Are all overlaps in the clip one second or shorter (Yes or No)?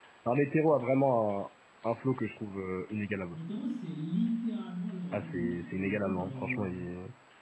No